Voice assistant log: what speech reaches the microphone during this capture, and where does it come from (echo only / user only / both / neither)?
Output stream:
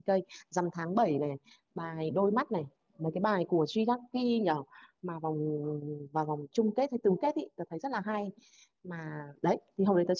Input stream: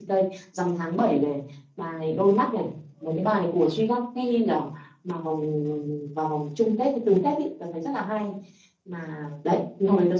echo only